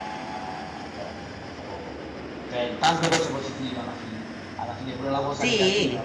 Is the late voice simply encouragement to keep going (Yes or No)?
Yes